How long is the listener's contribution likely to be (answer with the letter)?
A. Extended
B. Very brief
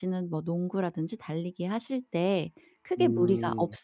B